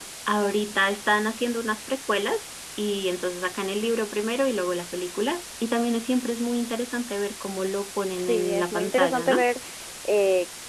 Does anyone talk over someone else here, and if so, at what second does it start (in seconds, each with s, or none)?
8.2 s